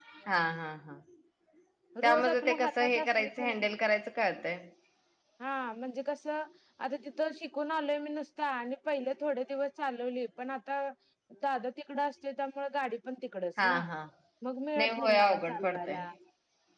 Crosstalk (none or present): present